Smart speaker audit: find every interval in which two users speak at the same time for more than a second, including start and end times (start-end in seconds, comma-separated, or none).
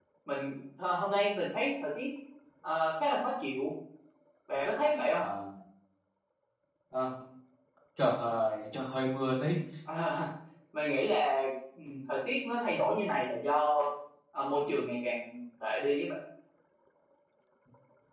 none